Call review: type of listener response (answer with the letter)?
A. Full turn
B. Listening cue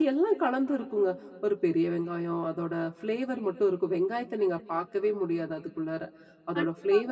A